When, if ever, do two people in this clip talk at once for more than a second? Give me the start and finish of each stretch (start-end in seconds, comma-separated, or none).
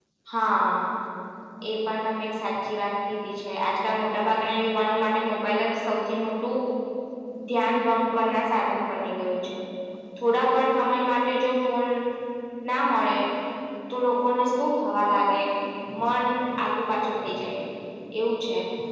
none